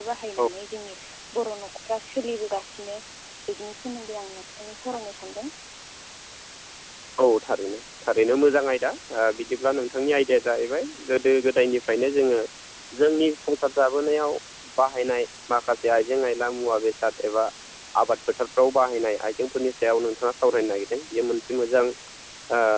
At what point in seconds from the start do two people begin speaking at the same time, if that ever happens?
none

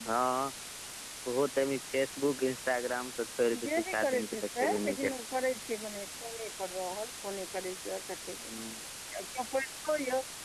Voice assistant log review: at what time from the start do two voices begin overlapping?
3.5 s

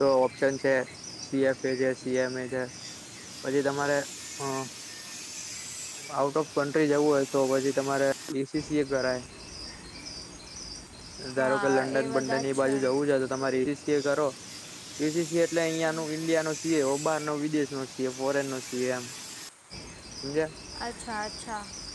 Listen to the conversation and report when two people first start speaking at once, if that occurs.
11.4 s

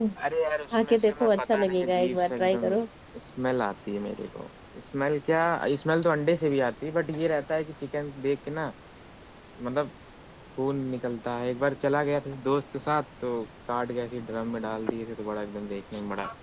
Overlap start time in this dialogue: 0.7 s

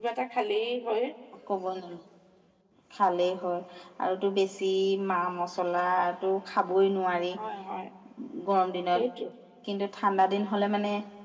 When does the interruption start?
none

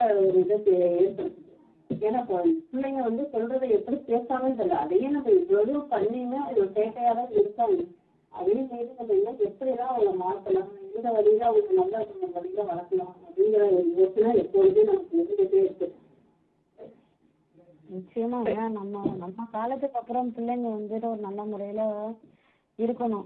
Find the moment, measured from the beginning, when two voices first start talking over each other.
none

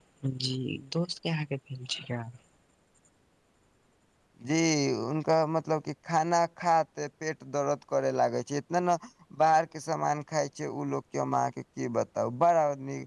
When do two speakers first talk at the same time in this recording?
none

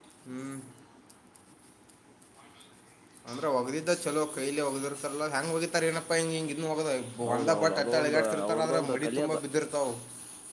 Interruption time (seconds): 7.3 s

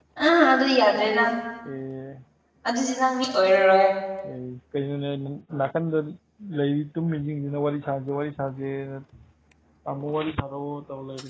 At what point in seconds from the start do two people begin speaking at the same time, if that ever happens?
none

